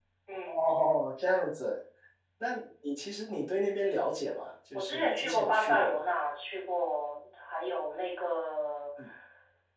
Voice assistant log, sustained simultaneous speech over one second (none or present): present